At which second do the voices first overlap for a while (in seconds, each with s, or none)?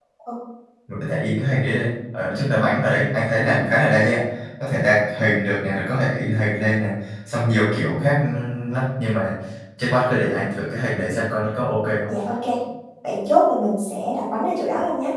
none